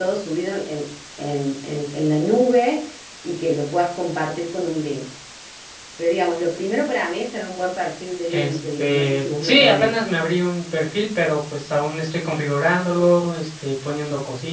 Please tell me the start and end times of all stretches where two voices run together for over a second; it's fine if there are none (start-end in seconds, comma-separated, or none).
8.3-9.9